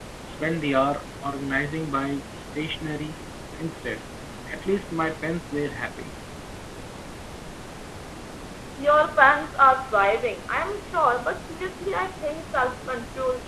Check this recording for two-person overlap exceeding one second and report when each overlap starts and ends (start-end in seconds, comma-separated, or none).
none